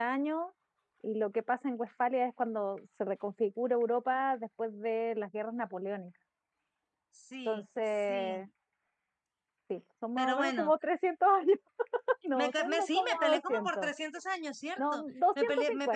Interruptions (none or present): present